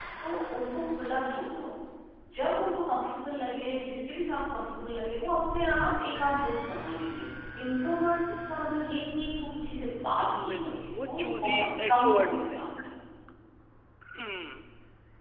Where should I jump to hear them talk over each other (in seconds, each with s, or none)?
10.4 s